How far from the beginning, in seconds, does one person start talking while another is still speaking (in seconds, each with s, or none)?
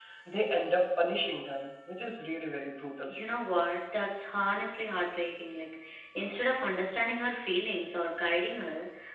none